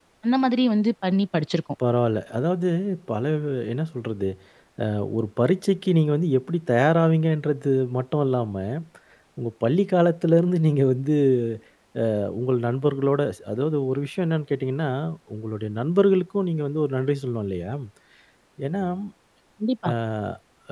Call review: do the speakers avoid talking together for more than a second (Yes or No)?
Yes